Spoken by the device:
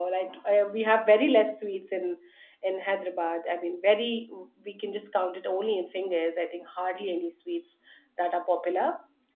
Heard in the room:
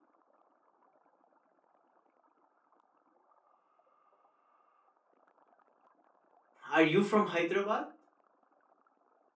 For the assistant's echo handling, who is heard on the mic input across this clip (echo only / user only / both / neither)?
user only